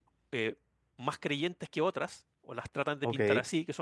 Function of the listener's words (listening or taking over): listening